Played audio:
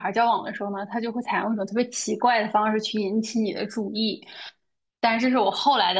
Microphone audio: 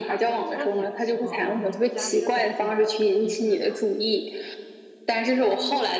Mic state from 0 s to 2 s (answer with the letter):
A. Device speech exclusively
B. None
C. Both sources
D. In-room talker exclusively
C